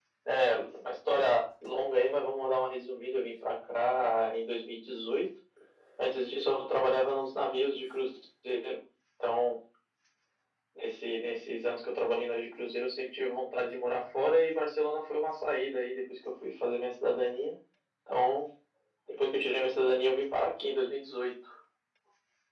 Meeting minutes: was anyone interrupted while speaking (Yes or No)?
No